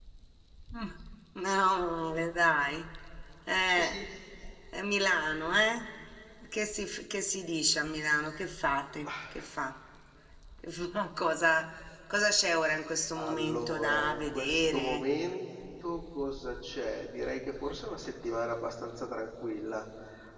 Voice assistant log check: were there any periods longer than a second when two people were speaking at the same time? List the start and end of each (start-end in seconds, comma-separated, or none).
13.2-15.0